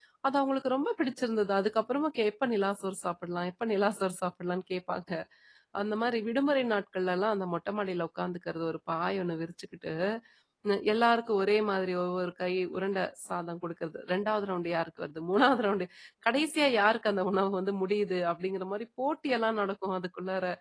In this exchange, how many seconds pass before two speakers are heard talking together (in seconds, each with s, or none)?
none